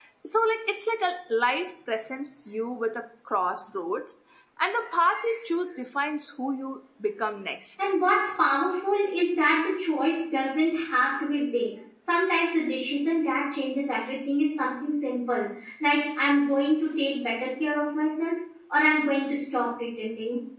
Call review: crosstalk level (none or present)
none